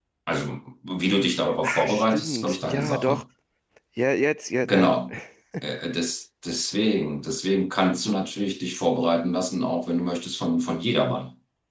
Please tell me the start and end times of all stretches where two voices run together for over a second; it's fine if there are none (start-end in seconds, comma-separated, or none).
1.6-3.2